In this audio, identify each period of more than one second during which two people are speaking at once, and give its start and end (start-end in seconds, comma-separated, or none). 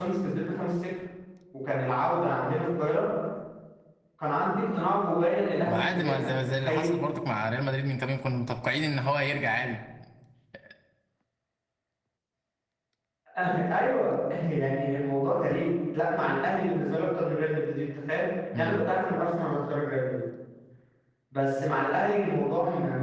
5.7-6.9